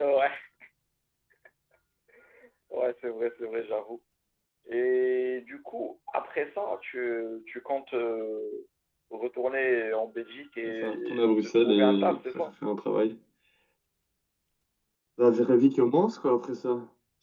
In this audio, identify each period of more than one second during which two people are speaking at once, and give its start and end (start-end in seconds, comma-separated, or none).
10.8-12.4